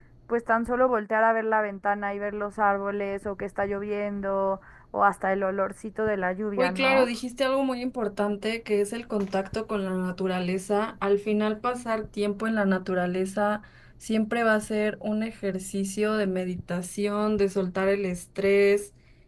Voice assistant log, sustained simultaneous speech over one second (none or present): none